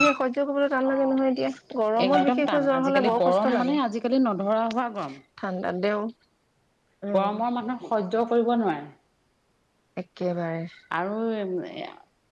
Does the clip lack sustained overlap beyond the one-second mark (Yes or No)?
No